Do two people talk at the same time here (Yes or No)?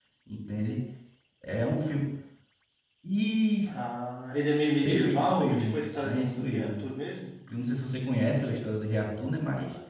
Yes